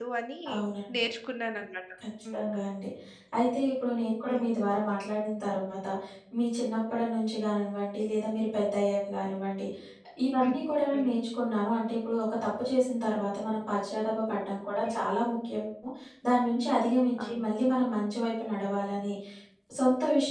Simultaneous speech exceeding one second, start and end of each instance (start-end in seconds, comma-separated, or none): none